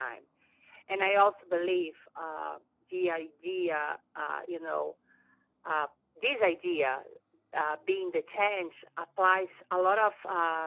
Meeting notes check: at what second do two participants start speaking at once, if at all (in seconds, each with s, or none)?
none